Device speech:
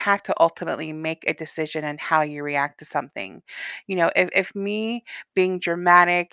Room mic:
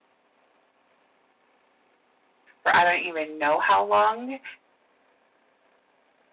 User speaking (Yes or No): Yes